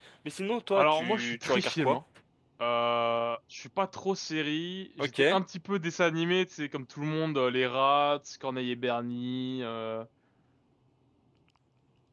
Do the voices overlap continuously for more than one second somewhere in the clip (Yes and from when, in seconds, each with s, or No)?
Yes, from 0.8 s